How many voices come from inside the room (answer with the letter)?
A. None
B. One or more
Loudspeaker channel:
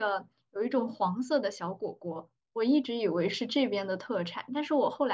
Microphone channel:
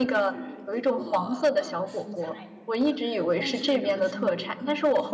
B